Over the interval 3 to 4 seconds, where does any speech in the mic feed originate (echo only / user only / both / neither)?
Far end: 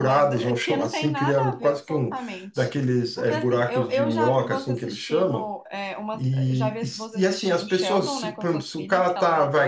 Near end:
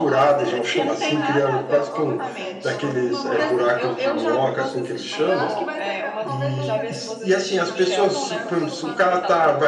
both